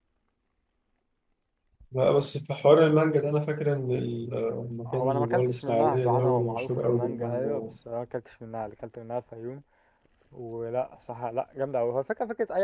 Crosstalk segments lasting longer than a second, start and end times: 4.9-7.7

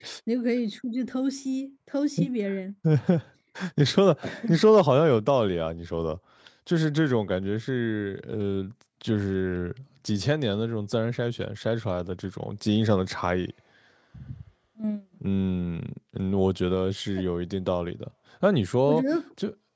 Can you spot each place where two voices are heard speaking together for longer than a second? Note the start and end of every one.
none

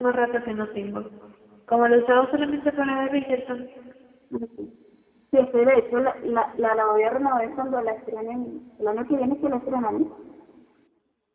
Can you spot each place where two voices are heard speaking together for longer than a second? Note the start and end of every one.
none

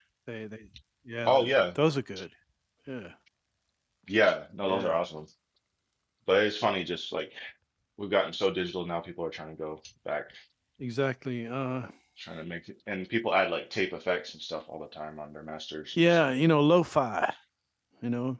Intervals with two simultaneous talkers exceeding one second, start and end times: none

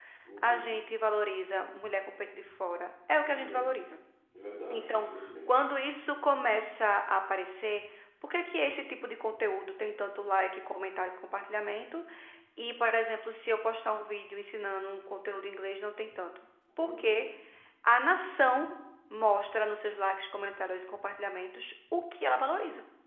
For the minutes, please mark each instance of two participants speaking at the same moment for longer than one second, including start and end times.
none

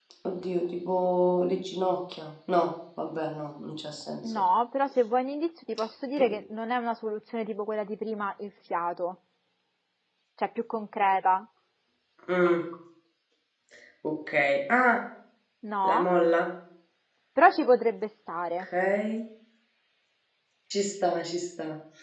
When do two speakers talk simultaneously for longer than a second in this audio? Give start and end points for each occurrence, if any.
none

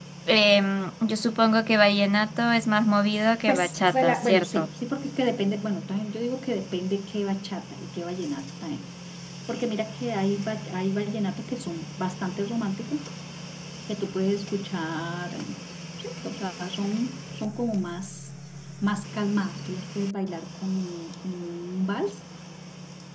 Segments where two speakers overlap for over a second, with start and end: 3.5-4.7

